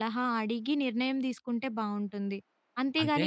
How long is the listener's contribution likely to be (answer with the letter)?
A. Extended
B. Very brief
B